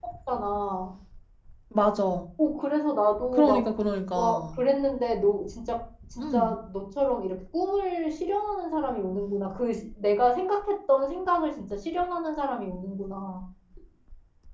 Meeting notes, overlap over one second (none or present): none